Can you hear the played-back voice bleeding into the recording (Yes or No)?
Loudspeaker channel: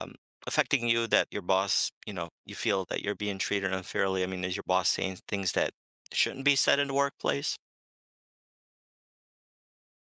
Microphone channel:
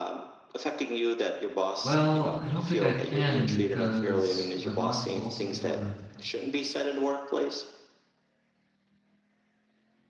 Yes